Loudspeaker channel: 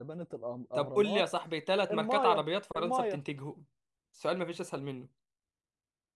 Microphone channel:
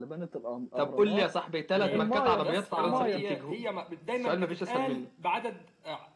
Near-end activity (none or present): present